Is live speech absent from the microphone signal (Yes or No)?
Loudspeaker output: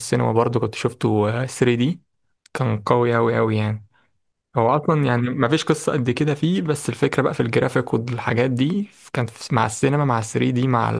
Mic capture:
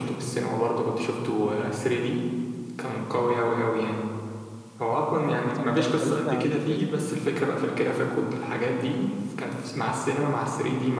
No